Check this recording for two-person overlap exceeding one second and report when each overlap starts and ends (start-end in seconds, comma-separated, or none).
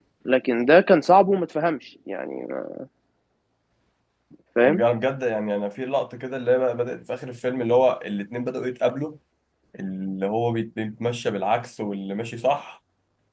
none